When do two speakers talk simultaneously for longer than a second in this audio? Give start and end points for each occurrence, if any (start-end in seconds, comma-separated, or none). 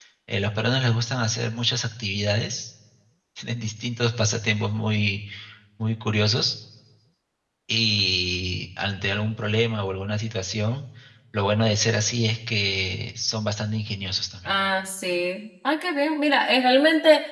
none